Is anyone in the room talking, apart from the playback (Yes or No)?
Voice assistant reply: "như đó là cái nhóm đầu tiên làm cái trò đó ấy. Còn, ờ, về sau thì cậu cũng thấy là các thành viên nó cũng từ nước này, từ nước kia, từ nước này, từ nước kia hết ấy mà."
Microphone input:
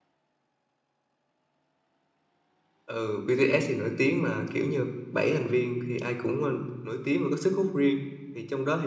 Yes